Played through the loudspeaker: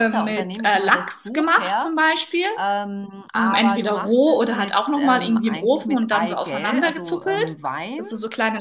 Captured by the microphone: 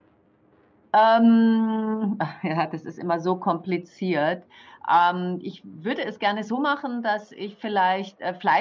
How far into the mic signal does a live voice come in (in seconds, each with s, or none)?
0.9 s